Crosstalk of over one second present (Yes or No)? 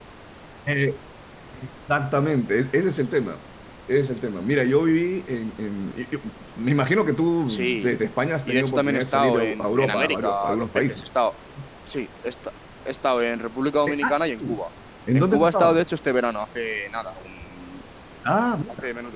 Yes